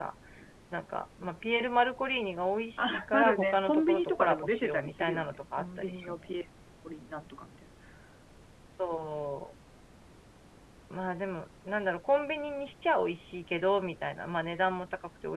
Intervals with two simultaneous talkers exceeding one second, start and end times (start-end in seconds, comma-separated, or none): 2.8-6.2